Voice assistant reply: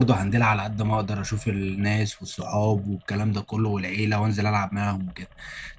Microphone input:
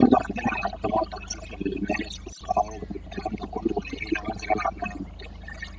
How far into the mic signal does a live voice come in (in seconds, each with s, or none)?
none